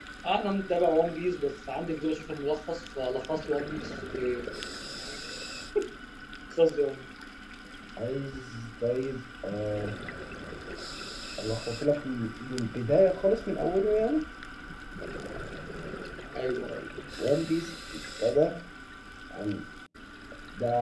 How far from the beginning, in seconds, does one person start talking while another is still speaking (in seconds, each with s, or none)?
none